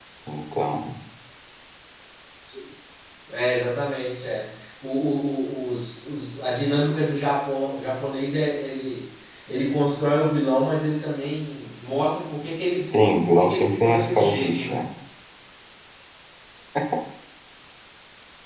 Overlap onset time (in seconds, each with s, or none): 13.2 s